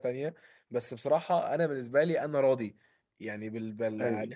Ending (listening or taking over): listening